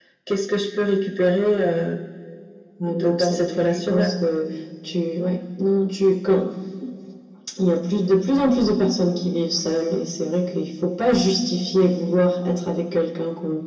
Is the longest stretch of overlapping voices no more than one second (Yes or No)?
No